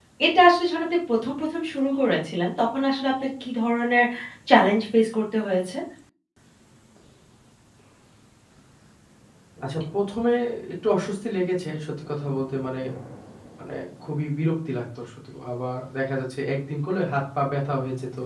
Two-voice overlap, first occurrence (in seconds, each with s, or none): none